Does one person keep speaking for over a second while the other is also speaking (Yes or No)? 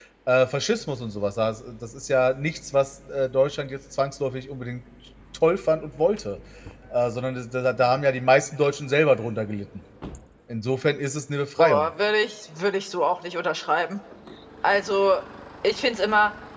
No